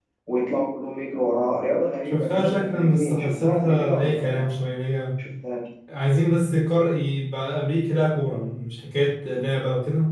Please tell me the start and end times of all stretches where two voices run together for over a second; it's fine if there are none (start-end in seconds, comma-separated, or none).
2.1-4.6